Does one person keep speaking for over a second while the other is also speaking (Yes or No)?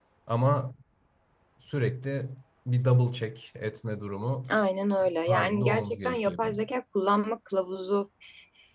Yes